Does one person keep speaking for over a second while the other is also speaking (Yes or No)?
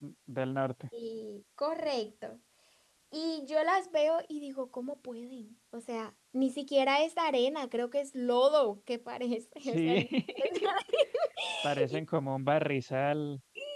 No